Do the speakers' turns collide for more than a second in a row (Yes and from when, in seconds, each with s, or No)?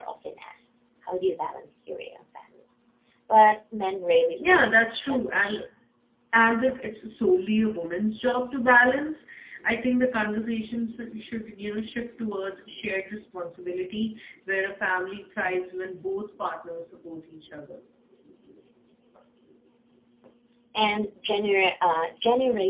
Yes, from 4.3 s